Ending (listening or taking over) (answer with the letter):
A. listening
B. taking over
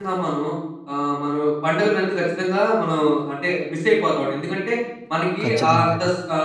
A